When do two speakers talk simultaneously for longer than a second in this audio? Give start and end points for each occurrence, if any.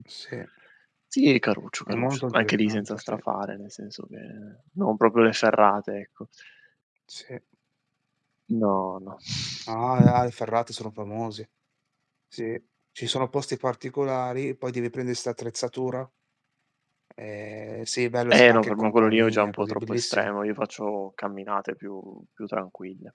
1.9-3.1, 18.3-20.3

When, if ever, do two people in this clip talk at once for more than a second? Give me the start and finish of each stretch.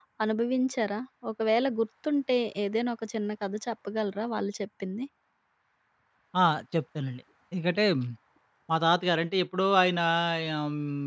none

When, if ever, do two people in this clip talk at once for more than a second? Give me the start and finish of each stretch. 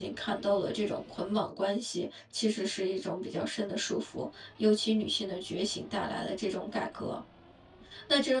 none

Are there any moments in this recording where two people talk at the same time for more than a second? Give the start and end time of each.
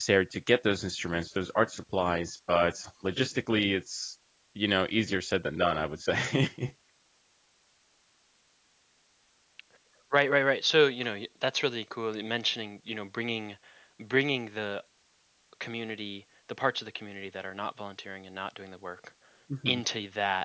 none

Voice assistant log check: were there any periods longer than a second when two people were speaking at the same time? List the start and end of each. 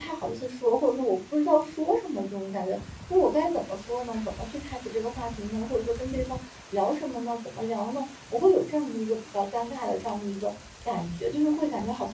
none

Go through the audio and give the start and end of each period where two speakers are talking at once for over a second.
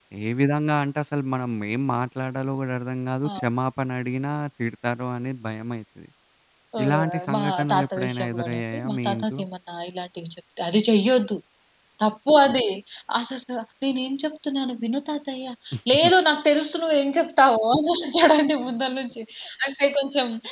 6.8-9.4

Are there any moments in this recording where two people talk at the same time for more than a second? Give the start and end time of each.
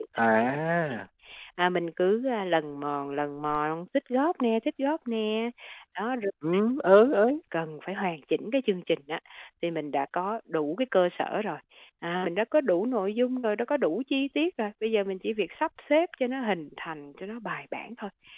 none

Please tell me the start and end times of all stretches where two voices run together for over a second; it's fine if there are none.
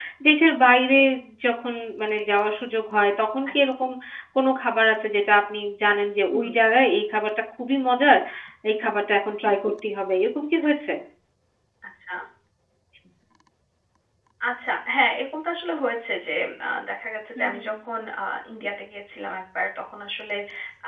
none

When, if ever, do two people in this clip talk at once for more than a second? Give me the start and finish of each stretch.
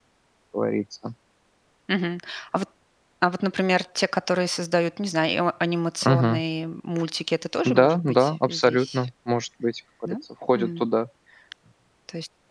7.6-9.0

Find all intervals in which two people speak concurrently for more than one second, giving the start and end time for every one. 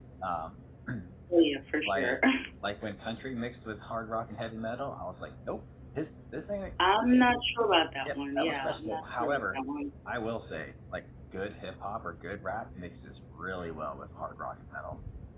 8.0-9.6

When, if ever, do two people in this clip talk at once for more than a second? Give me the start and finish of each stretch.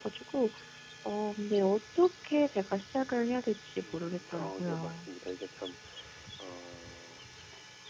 3.8-5.1

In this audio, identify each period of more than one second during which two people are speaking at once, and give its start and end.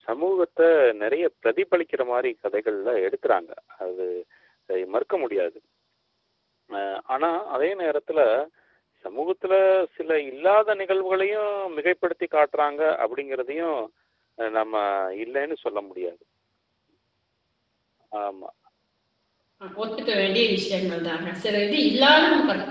none

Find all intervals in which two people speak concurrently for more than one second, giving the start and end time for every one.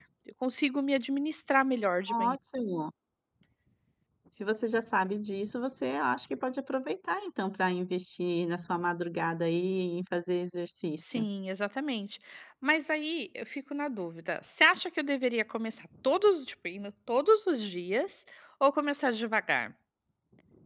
none

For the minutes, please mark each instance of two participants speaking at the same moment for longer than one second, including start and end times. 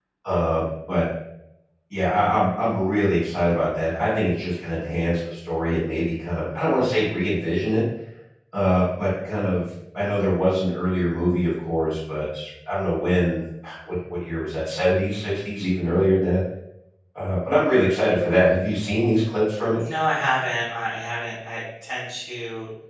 none

